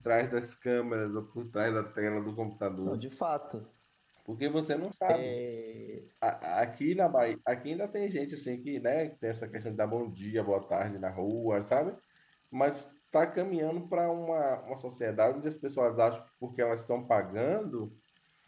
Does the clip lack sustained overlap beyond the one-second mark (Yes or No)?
Yes